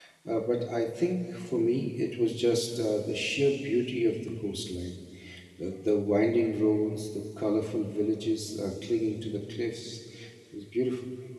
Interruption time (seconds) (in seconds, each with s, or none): none